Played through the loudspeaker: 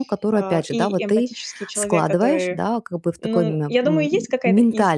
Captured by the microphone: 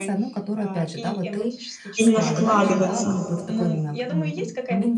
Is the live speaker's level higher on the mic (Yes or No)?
Yes